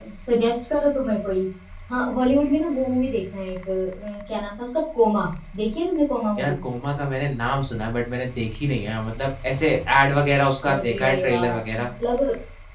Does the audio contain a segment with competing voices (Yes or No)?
Yes